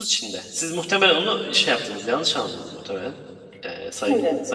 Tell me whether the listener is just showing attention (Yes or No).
Yes